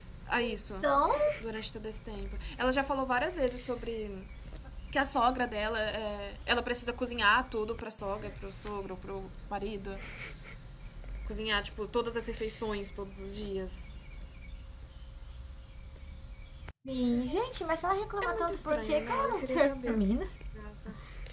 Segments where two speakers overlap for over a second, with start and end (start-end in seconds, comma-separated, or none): 18.2-20.0